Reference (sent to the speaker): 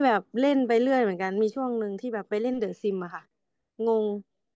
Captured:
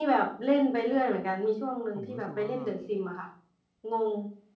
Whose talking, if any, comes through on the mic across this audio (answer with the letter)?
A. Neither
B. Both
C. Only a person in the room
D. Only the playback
B